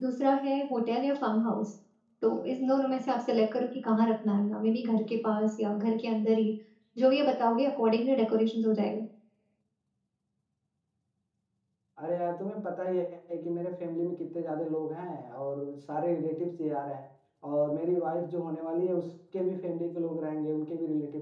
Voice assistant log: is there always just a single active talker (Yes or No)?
Yes